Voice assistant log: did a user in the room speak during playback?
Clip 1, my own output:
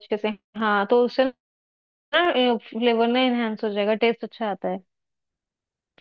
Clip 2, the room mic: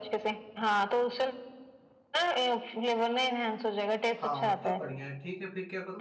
Yes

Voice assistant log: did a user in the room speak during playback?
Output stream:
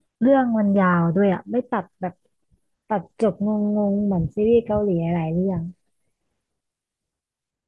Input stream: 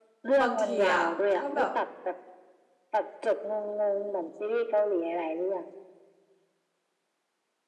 Yes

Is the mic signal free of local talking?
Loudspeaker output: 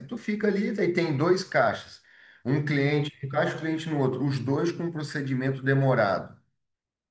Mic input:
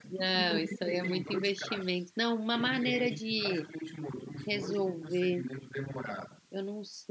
No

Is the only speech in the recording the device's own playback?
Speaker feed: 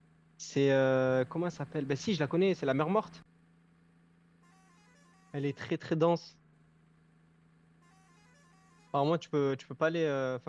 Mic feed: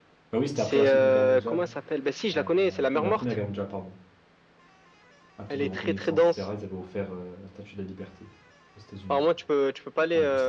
No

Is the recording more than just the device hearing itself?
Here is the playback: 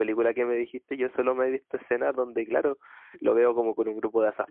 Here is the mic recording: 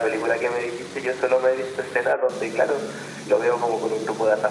No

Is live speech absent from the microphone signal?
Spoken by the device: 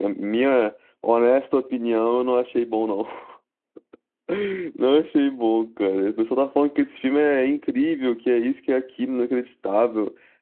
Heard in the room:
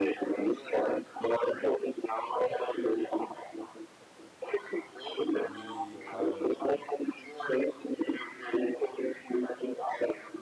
No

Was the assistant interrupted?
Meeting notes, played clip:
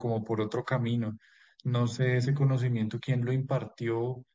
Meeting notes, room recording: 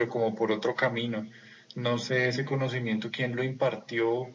No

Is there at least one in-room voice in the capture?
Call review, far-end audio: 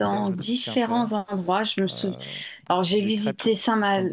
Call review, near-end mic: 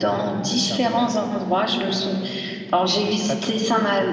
No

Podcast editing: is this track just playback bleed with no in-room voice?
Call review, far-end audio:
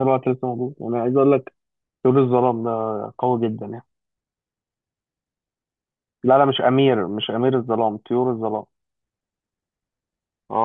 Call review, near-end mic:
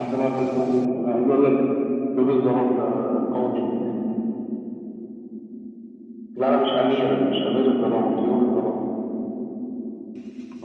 Yes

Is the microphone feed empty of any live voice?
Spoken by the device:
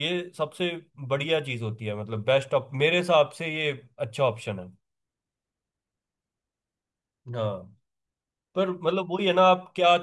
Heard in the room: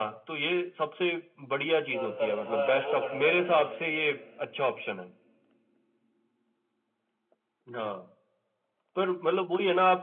No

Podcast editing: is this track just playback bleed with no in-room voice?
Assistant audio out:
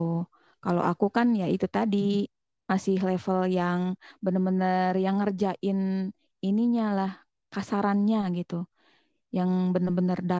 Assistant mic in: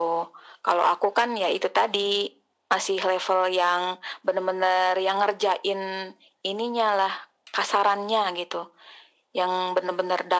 Yes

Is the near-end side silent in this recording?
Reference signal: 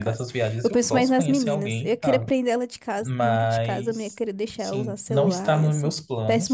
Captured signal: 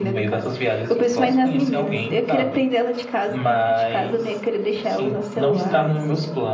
Yes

